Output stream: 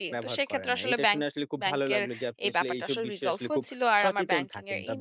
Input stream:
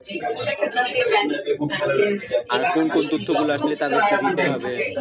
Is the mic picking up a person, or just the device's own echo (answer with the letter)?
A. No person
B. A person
B